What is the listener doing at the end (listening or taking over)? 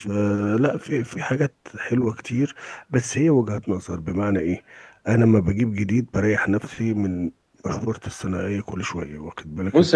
taking over